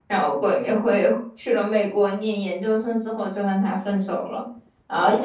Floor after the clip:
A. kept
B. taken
A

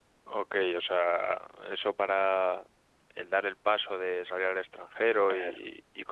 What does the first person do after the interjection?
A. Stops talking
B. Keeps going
B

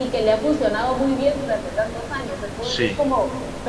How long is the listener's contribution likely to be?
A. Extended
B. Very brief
B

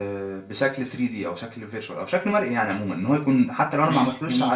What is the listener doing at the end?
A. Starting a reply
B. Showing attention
B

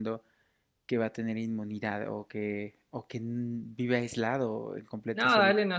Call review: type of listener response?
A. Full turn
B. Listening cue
A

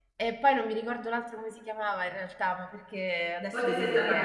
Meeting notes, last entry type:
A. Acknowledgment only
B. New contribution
B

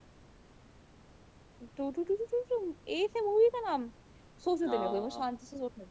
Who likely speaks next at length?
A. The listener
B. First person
B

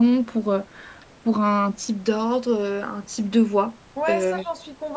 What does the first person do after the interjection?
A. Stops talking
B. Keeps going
A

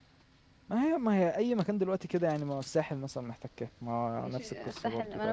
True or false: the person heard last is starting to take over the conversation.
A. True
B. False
A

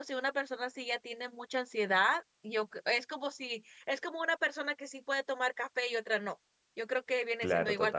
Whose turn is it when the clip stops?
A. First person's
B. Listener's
A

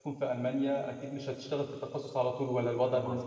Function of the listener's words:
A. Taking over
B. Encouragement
A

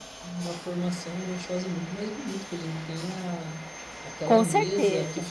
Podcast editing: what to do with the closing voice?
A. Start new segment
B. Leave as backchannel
B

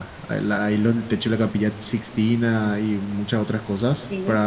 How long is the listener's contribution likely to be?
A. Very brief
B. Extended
A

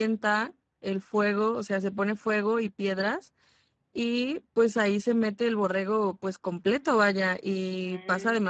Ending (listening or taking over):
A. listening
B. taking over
A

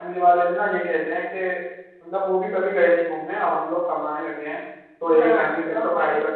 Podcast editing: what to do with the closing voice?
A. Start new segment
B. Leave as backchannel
A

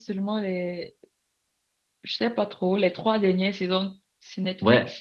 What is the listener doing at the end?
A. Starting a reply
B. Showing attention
A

